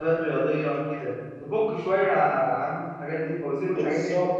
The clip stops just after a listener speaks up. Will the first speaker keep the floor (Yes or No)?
No